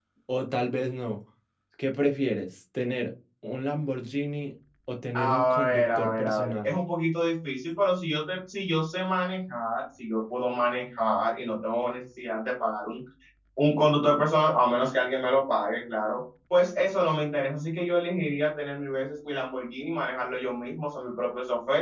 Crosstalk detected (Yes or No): Yes